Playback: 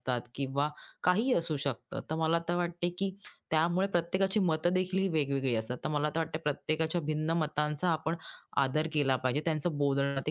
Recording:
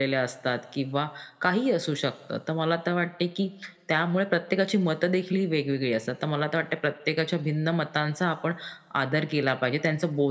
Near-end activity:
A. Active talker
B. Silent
B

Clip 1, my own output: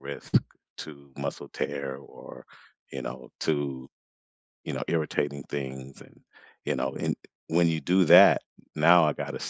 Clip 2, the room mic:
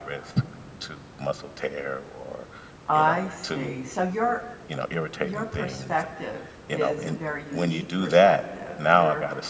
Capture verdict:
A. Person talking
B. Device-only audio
A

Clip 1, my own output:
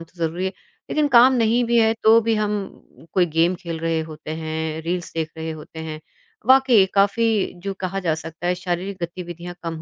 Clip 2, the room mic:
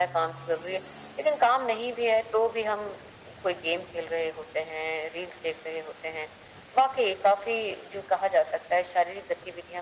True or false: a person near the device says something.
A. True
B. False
B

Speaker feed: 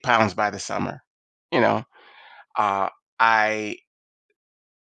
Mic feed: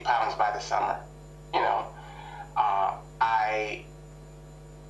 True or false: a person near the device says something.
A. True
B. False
B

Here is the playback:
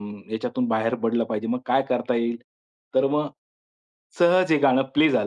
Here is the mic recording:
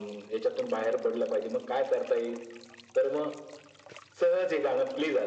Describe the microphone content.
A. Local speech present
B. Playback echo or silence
B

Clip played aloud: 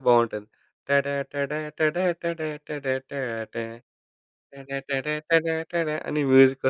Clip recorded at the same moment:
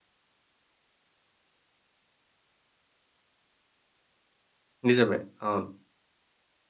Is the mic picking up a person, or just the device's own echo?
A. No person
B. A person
B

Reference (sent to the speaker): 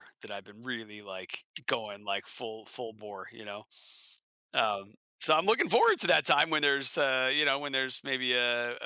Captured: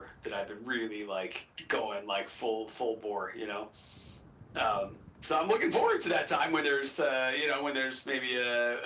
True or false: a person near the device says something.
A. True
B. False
B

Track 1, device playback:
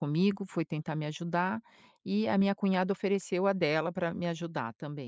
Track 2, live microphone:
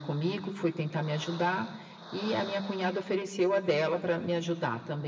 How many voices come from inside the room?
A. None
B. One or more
A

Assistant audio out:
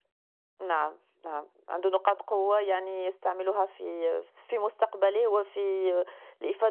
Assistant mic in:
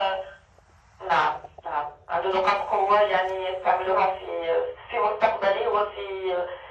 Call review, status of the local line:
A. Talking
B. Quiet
B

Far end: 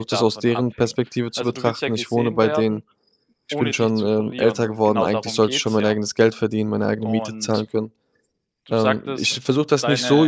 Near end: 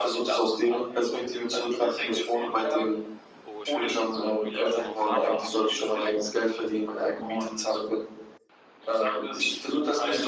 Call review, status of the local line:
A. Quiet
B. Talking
B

